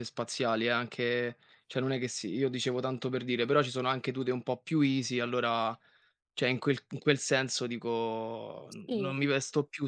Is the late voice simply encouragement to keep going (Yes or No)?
Yes